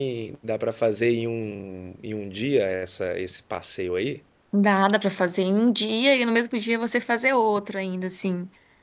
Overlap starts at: none

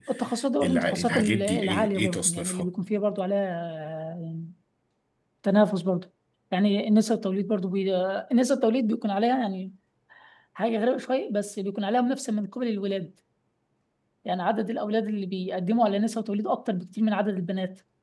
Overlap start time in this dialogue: 0.6 s

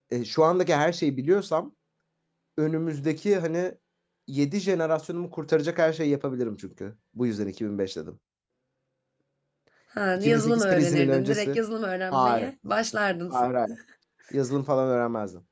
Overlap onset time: 10.2 s

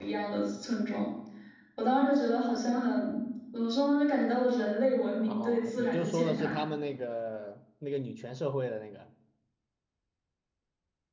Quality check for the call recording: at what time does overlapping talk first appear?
5.3 s

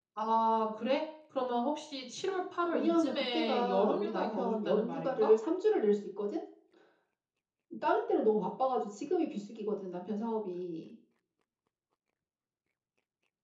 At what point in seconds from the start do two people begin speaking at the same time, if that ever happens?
2.7 s

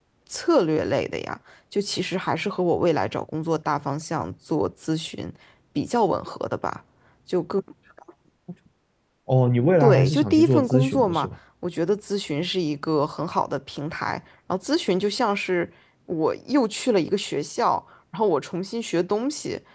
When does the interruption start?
9.8 s

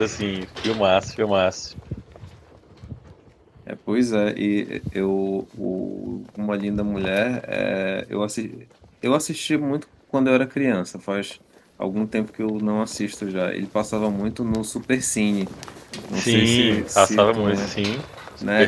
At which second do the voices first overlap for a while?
16.2 s

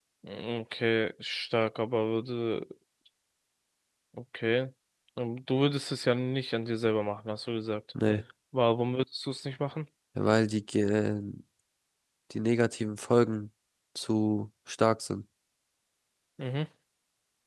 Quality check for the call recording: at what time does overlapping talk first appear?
none

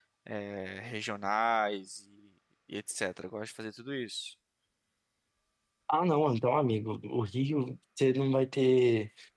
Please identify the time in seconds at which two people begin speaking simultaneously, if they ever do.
none

